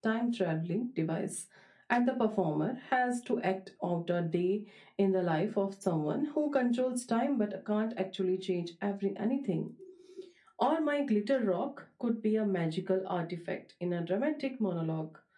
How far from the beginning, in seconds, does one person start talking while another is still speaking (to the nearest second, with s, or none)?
none